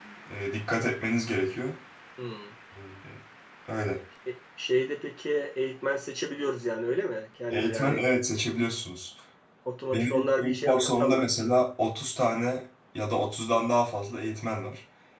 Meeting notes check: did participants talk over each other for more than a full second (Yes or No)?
Yes